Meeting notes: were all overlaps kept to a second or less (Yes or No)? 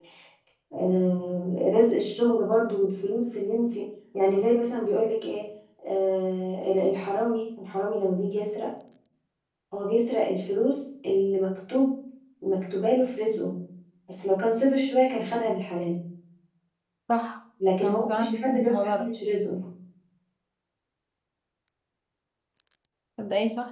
No